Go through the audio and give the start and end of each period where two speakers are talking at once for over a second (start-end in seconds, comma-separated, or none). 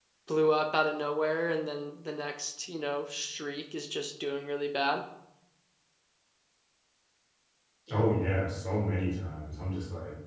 none